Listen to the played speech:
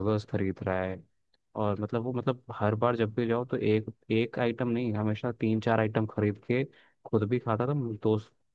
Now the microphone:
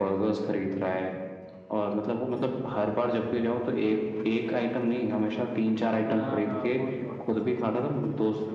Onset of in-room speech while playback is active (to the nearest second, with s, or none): 6 s